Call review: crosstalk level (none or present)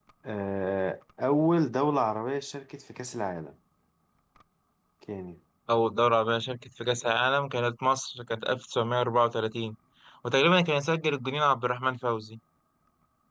none